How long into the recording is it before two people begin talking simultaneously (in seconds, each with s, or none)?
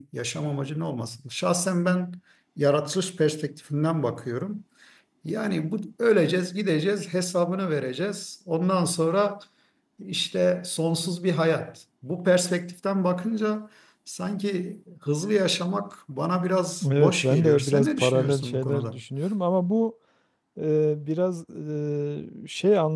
16.8 s